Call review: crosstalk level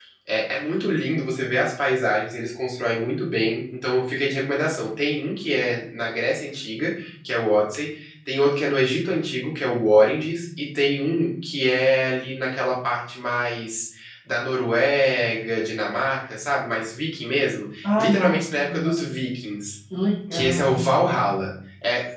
present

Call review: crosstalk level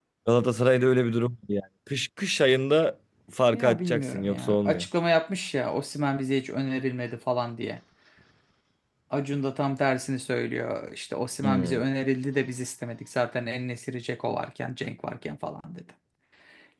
present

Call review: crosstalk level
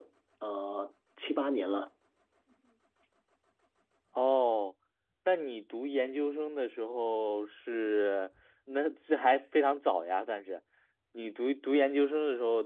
none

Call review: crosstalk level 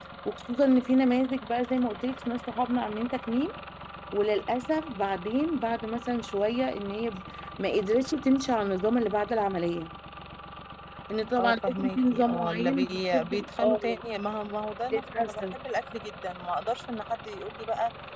present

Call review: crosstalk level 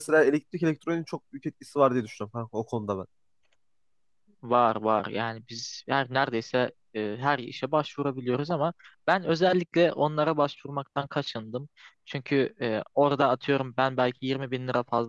none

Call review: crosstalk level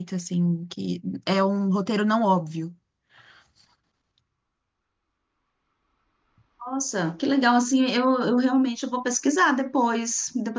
none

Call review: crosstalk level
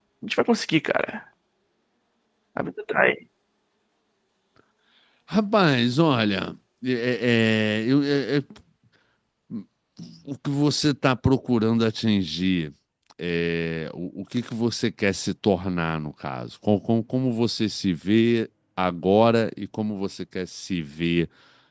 none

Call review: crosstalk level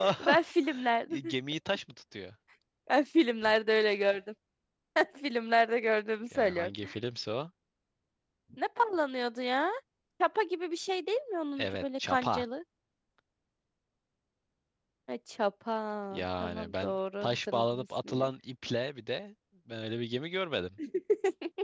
present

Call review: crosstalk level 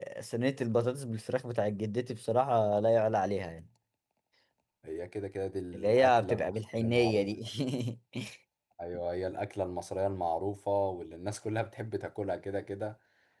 present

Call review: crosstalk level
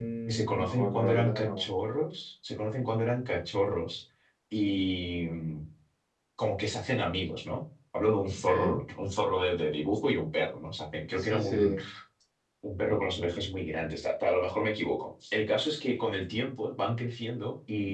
present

